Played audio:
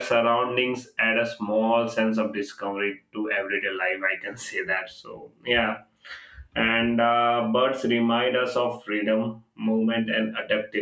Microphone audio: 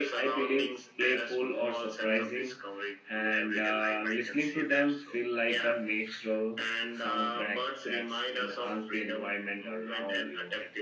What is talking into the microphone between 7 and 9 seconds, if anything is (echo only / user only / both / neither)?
both